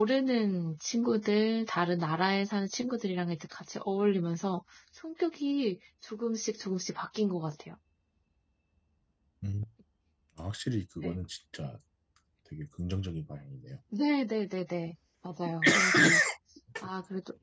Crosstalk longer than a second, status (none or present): none